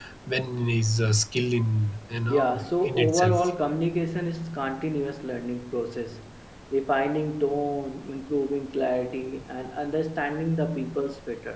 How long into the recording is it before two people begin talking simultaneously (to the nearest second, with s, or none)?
2 s